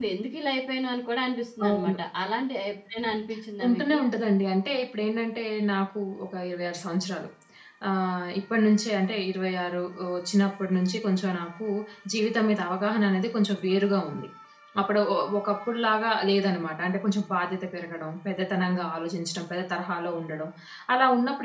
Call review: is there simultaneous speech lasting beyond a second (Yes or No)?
No